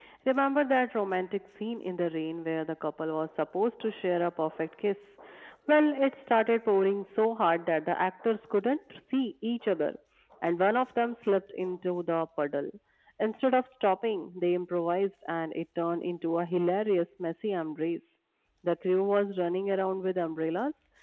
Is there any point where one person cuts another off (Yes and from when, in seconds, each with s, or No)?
No